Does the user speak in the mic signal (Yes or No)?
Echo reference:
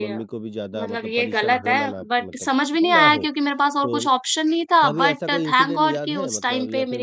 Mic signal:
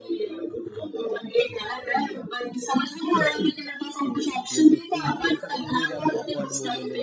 Yes